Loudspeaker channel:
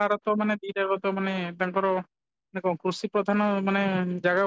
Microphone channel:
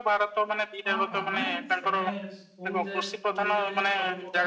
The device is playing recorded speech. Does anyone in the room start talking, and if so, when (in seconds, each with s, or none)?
0.9 s